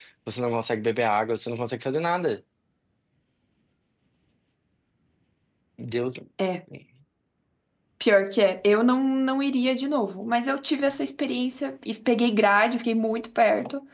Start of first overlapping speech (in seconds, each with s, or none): none